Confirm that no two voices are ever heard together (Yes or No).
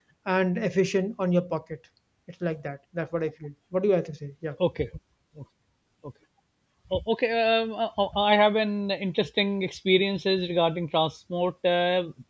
Yes